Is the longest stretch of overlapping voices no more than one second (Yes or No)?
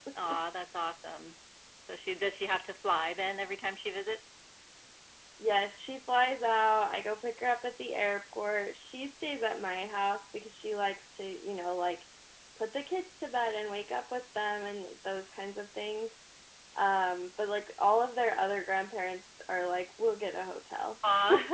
Yes